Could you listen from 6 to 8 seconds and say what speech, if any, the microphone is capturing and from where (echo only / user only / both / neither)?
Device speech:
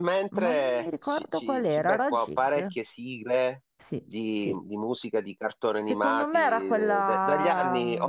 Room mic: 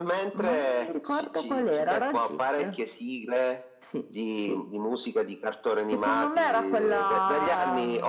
echo only